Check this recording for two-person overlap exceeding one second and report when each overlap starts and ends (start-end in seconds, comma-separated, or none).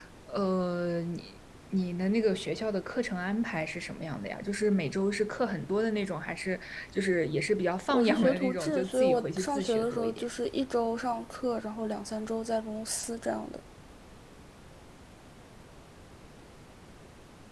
7.9-10.2